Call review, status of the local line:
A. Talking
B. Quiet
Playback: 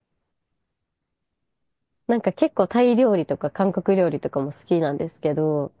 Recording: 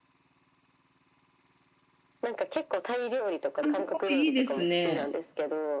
A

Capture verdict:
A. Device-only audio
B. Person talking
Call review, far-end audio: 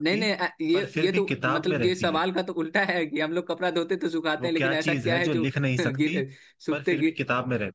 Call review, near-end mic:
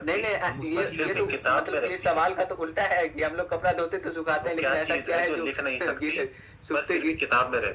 B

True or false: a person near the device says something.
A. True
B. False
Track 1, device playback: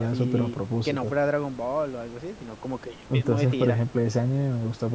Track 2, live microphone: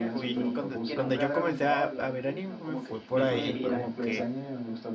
A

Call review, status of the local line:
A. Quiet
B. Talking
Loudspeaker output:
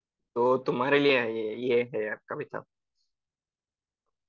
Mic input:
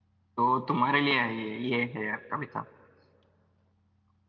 A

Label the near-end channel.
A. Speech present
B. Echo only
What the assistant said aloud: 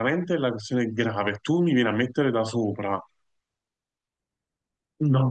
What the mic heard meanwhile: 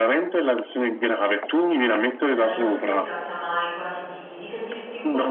A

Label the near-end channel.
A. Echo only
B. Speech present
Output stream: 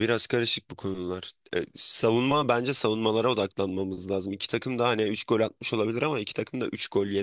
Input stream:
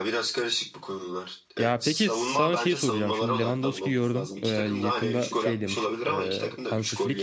B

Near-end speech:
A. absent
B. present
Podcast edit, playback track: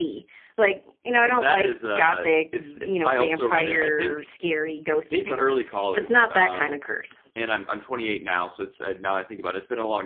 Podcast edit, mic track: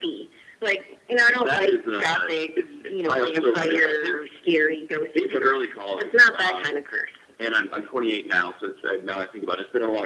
A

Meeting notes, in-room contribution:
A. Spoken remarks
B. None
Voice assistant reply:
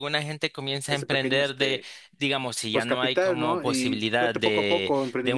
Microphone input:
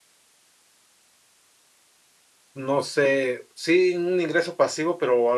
A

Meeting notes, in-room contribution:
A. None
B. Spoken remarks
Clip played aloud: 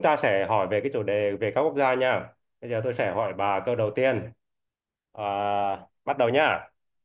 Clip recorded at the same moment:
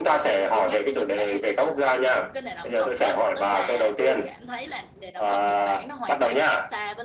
B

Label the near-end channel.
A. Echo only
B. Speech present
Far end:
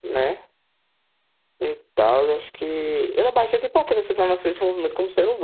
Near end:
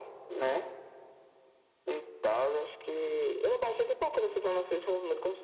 A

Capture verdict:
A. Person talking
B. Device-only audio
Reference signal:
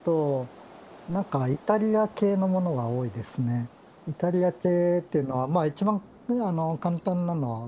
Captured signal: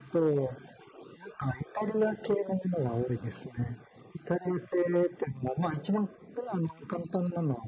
B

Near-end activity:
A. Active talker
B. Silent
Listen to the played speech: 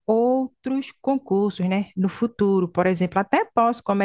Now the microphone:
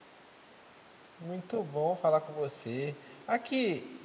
A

